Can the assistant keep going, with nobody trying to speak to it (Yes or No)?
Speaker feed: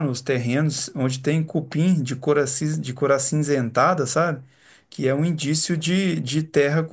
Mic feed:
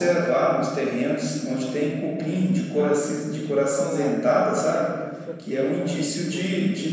No